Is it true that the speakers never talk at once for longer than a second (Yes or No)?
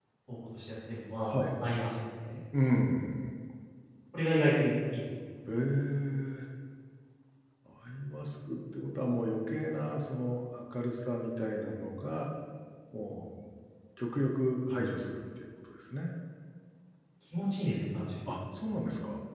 Yes